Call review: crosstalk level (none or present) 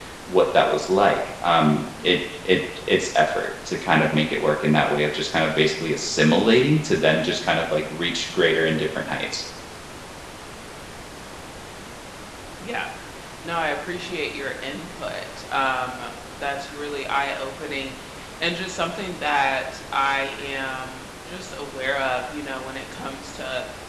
none